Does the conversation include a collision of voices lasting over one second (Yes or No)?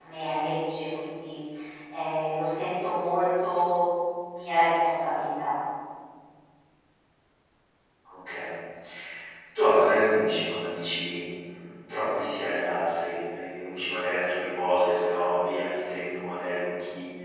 No